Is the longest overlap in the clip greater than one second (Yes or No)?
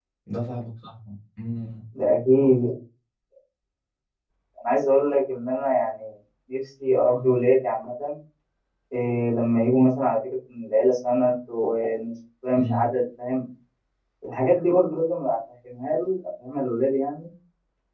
No